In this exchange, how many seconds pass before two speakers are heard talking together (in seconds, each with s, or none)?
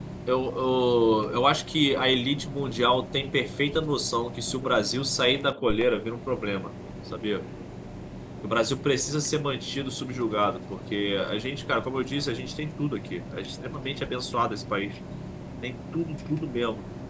none